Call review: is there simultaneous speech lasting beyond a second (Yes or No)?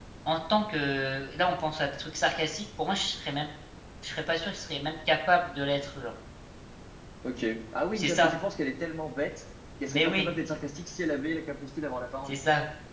No